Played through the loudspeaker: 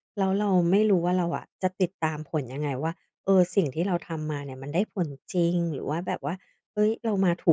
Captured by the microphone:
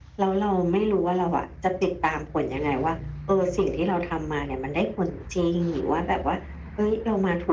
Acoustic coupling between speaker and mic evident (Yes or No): Yes